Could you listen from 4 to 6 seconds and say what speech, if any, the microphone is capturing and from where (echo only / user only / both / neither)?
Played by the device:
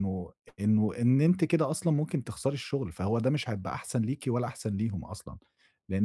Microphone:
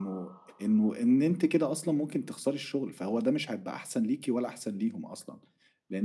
echo only